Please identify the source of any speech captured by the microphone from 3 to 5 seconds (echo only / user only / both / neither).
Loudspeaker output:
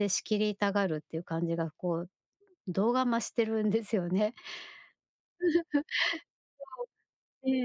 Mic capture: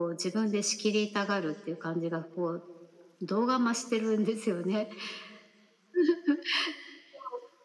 echo only